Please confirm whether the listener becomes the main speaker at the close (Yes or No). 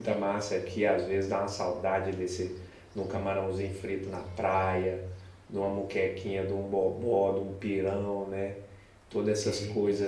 No